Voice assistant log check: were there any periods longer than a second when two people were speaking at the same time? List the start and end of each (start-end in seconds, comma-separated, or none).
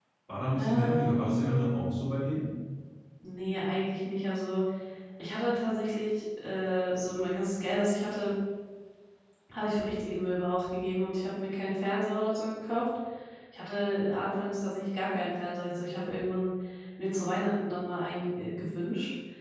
0.6-1.9